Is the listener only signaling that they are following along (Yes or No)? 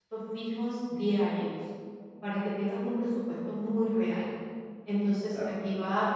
Yes